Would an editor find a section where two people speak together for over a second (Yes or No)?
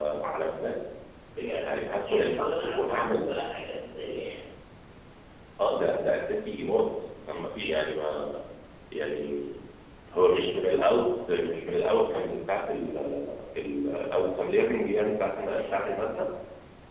Yes